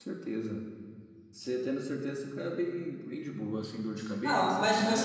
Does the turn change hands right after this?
Yes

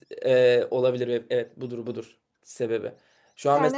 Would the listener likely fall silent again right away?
Yes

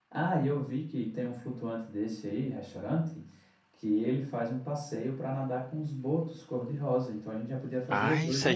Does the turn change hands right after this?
Yes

